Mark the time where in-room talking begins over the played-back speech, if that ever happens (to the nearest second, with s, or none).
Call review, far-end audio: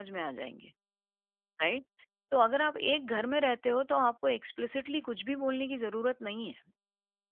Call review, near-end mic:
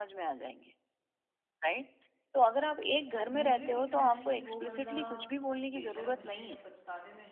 3 s